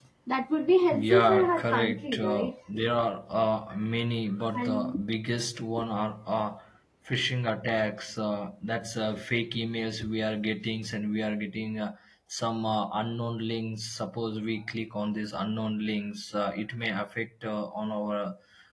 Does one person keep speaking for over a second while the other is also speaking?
Yes, from 0.9 s

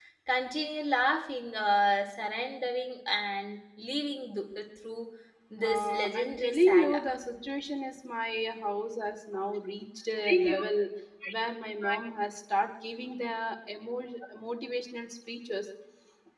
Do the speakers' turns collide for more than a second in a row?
Yes, from 5.7 s

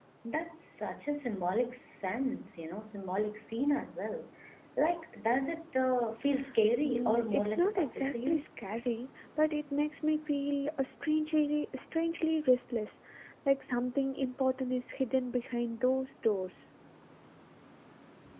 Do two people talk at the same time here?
Yes, from 6.8 s

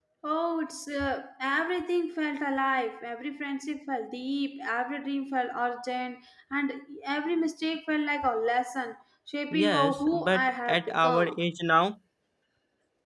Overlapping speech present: Yes, from 9.5 s

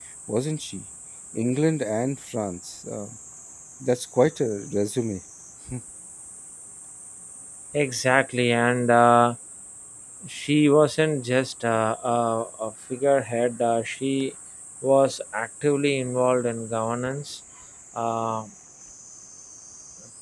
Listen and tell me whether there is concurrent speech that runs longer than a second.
No

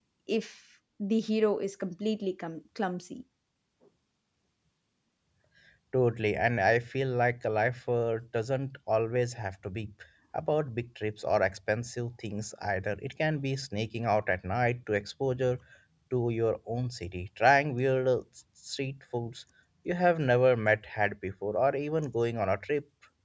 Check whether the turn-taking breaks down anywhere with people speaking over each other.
No

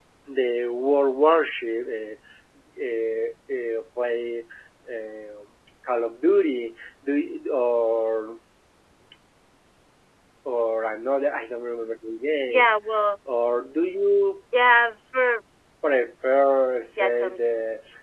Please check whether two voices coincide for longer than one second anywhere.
No

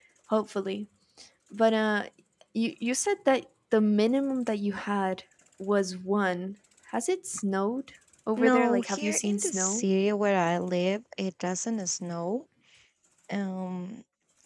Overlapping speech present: Yes, from 8.4 s

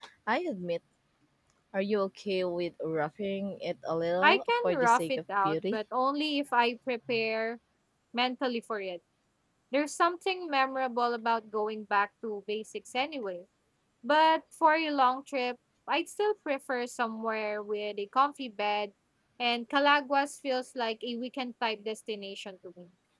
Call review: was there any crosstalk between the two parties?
Yes, from 4.2 s

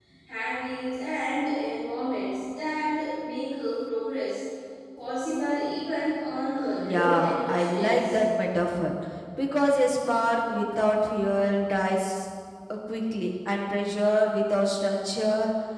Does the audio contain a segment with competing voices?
Yes, from 6.8 s

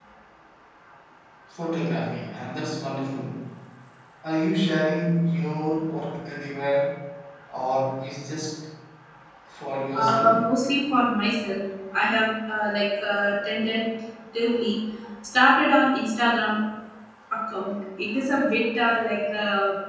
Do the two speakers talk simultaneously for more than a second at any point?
No

